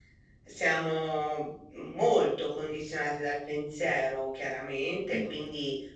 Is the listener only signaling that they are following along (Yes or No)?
Yes